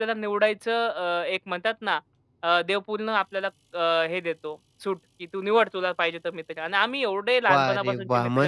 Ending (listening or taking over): taking over